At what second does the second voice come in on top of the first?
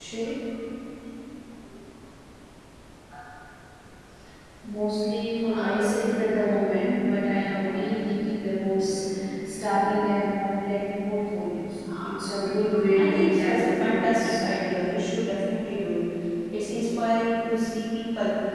13.0 s

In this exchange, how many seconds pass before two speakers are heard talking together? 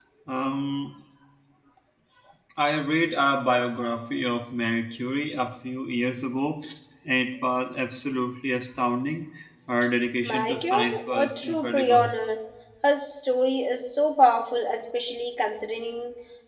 10.2 s

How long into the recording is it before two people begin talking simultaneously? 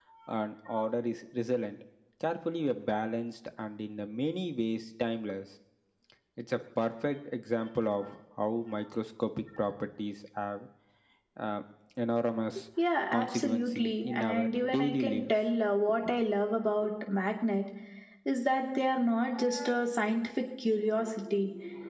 13.1 s

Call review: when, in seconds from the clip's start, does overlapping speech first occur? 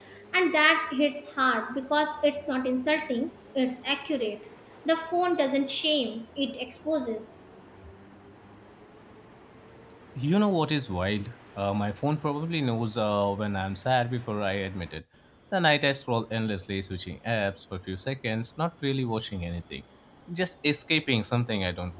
none

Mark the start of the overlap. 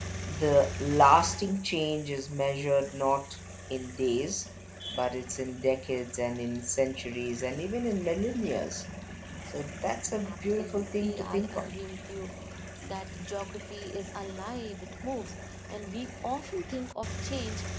10.2 s

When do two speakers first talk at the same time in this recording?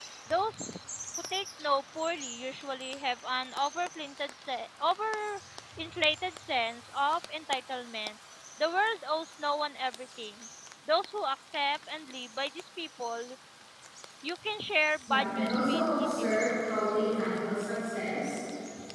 15.1 s

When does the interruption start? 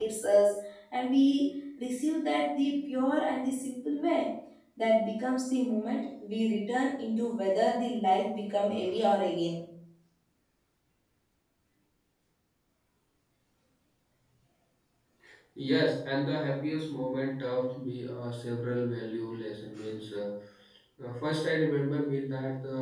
none

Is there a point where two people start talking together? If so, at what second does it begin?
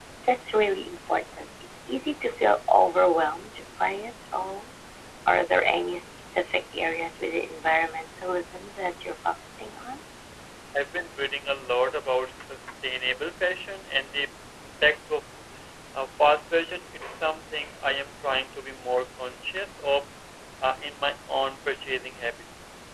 none

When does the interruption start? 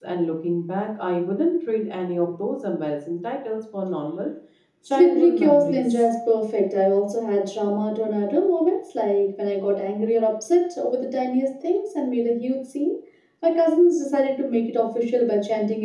4.8 s

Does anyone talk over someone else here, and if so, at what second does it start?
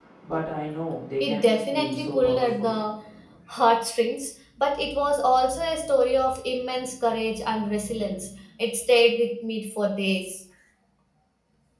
1.2 s

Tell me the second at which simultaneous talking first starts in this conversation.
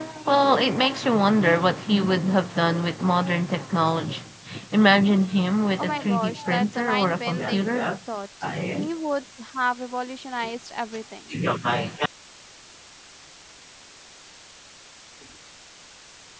5.8 s

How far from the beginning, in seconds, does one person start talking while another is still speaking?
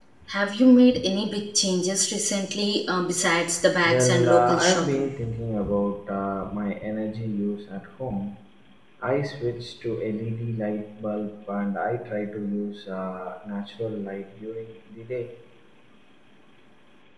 3.9 s

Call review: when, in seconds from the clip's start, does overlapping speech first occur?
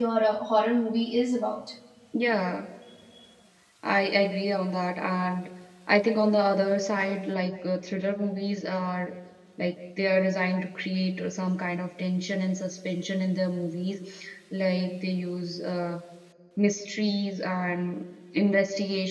none

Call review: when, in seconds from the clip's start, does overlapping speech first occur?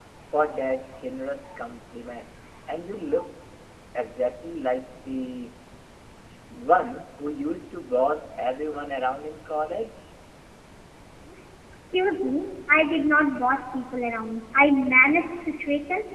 none

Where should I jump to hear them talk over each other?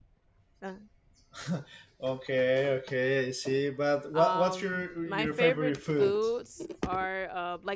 4.1 s

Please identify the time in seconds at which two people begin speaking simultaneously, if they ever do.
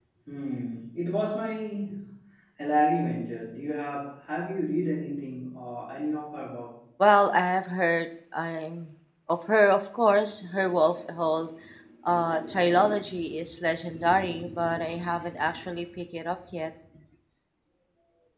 none

